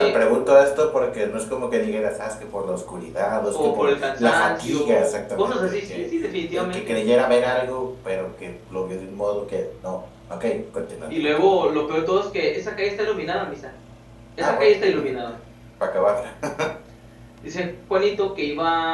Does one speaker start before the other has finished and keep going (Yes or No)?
Yes